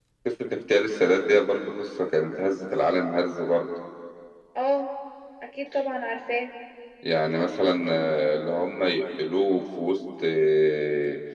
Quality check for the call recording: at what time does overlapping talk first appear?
none

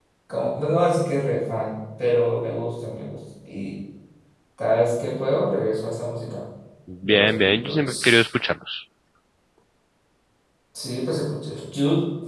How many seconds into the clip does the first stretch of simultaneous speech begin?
7 s

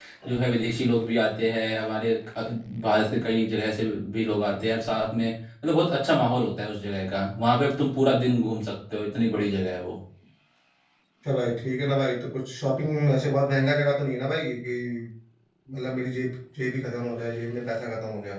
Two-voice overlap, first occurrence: none

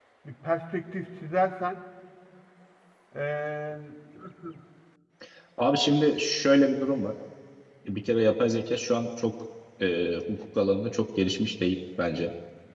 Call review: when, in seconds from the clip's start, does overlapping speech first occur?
none

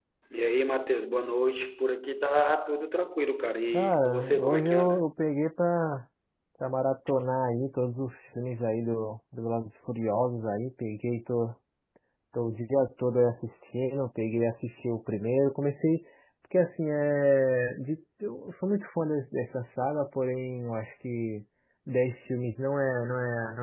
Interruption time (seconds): 4 s

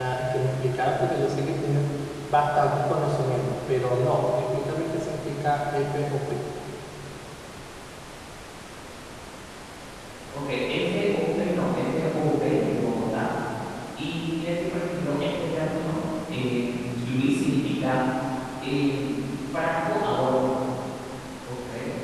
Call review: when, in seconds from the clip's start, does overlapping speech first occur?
none

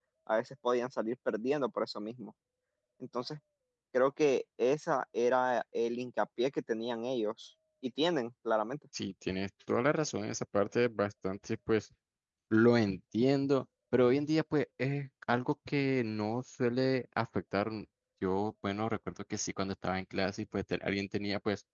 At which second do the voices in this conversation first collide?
none

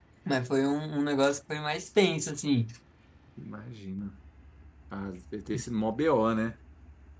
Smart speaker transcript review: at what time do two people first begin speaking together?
none

